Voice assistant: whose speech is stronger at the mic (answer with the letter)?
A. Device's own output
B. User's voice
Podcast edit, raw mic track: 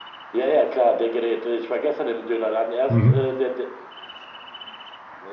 B